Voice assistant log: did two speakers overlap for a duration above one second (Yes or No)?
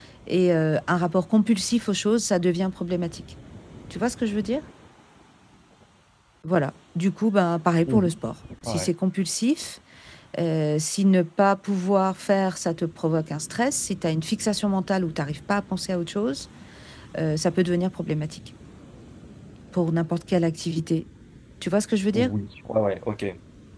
No